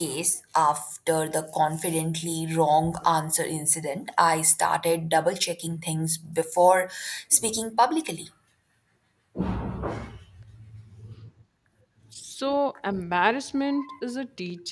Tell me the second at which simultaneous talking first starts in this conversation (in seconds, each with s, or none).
none